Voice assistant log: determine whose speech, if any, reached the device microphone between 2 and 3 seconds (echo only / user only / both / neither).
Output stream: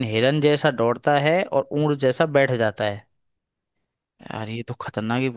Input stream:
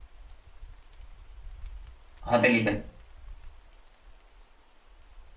user only